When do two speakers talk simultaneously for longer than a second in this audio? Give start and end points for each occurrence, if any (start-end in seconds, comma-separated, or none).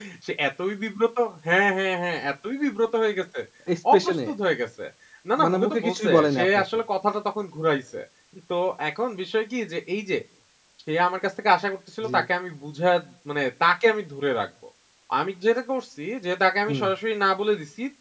5.4-6.6